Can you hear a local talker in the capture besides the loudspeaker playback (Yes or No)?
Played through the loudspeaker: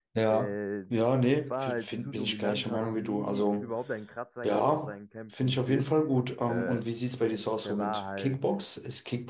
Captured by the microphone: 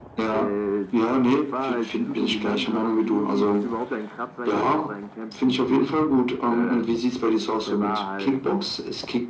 No